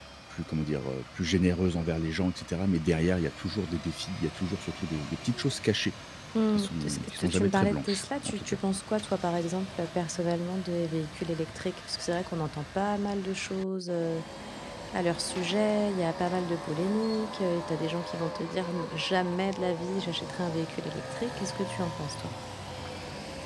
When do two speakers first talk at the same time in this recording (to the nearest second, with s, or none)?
6 s